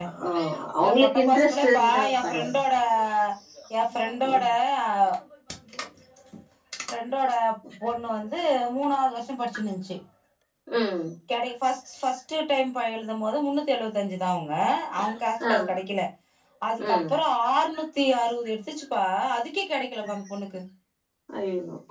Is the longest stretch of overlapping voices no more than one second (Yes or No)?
No